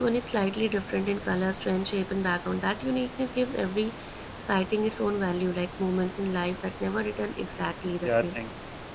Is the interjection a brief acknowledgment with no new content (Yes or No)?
No